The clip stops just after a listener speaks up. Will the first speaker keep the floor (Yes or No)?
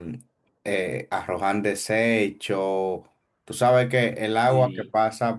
Yes